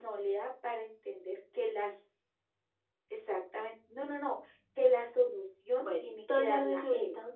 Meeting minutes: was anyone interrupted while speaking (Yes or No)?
Yes